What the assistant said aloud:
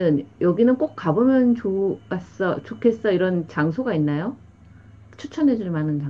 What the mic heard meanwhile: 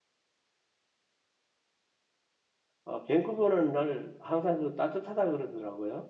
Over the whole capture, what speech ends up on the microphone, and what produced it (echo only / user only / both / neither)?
user only